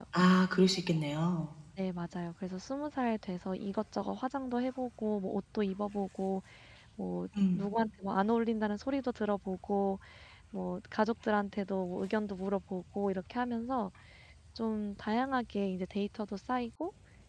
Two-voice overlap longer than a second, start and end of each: none

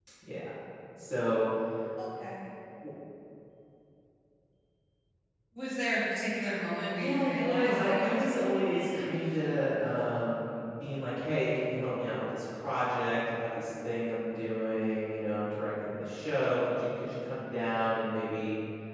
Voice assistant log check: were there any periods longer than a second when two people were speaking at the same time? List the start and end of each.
7.0-9.3

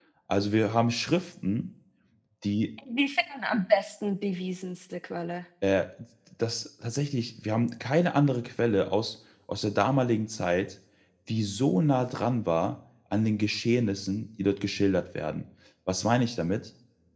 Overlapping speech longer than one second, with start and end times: none

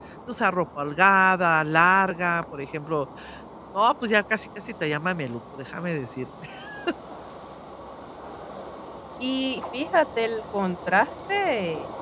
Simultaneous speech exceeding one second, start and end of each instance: none

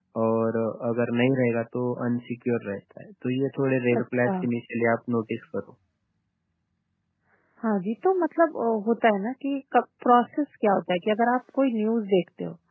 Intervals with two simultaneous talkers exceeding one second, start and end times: none

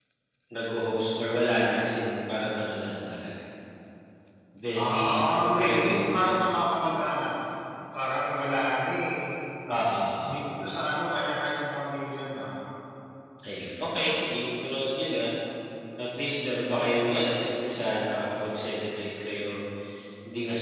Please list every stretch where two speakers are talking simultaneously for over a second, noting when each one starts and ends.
4.8-6.4

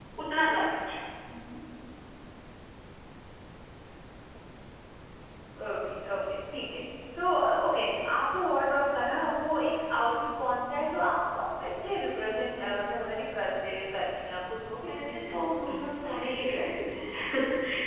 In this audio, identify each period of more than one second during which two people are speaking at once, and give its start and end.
14.9-16.2

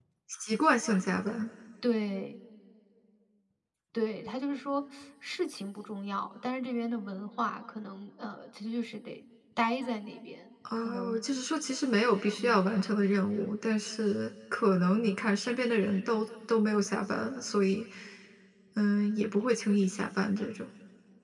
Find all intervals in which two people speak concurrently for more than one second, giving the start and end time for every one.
none

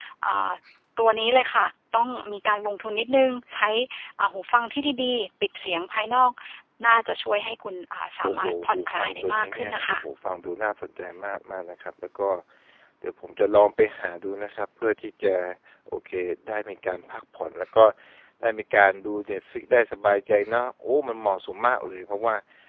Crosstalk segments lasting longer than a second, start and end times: 8.2-10.0

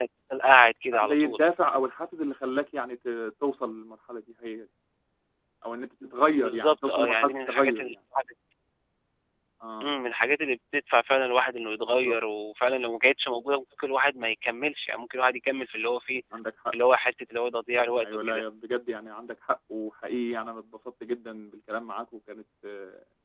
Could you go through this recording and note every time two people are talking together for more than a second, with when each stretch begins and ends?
6.4-7.9

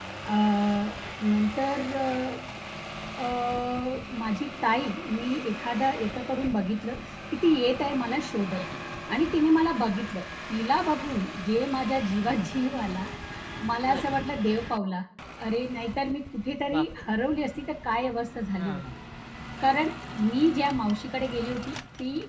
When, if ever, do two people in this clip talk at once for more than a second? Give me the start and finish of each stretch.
none

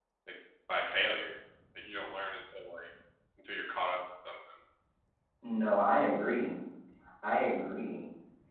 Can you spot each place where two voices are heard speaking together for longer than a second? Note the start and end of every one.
none

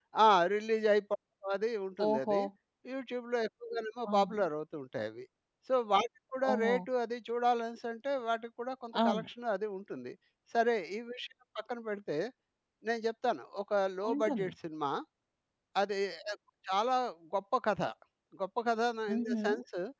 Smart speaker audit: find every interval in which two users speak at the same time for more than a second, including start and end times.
none

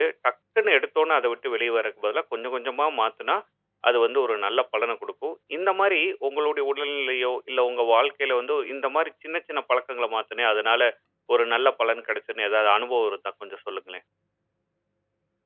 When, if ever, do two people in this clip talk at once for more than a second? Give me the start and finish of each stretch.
none

